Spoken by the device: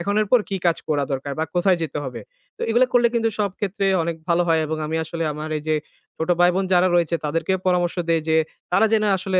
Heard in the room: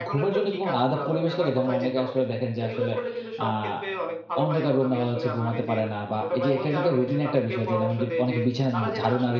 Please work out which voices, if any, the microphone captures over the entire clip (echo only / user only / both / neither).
both